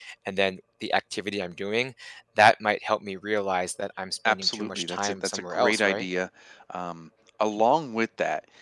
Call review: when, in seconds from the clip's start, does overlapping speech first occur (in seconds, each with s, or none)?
4.2 s